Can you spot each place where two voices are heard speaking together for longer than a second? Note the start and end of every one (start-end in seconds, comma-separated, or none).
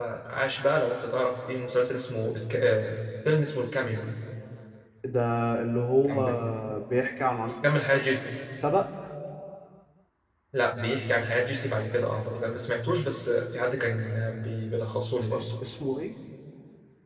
none